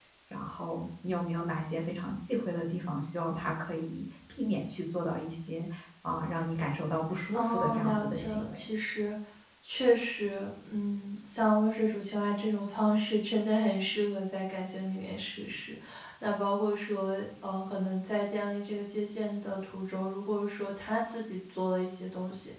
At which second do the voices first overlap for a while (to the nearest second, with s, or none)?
7 s